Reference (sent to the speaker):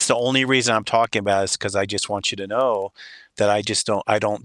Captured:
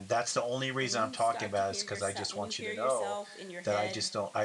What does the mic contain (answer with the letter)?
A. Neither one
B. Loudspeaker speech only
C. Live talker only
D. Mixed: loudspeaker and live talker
D